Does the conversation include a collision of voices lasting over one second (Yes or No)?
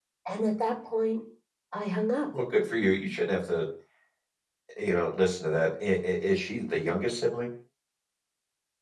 No